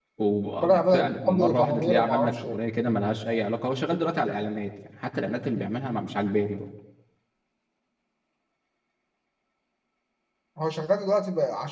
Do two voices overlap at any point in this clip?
Yes, from 0.6 s

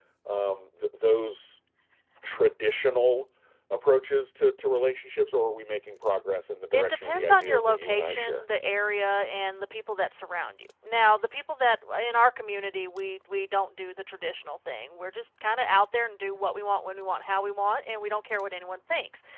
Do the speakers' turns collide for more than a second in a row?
Yes, from 6.7 s

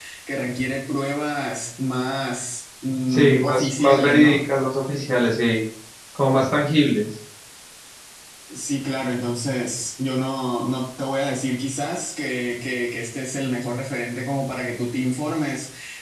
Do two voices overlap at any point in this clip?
Yes, from 3.1 s

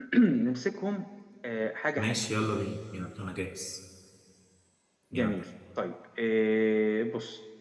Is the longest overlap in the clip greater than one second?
No

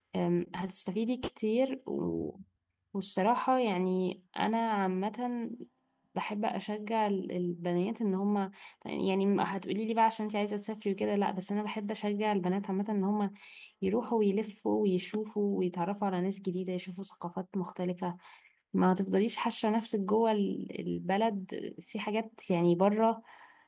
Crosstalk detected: No

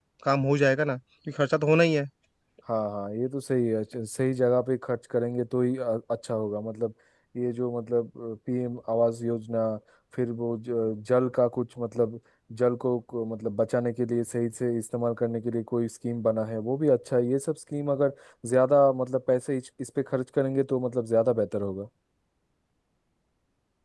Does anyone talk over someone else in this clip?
No

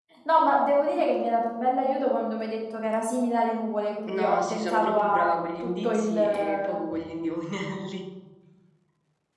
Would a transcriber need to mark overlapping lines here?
Yes, from 4.1 s

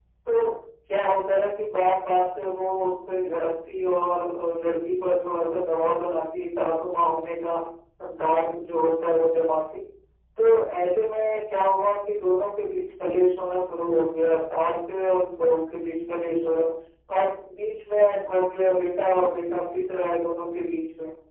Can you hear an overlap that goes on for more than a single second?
No

